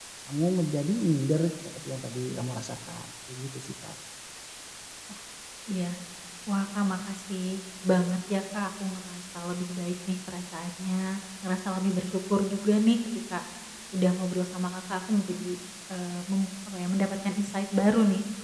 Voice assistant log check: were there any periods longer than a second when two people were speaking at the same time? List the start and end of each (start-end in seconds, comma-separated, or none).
none